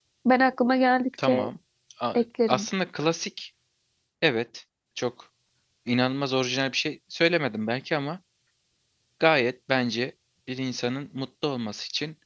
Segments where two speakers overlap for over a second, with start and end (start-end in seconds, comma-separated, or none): none